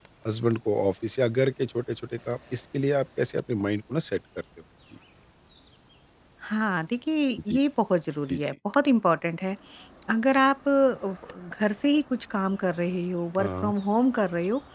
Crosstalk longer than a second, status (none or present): none